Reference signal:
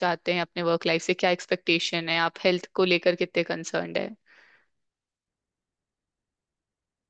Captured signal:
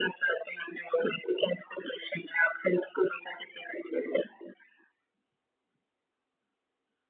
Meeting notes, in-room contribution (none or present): none